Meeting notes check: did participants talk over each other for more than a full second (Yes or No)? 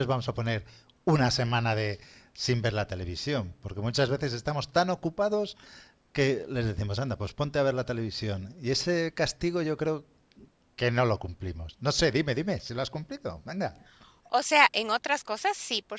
No